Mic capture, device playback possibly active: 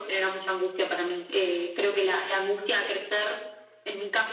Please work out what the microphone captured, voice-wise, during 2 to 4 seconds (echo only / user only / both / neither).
echo only